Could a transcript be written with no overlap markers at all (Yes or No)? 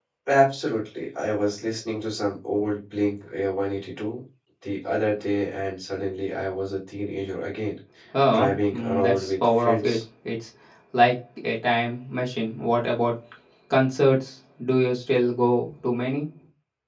No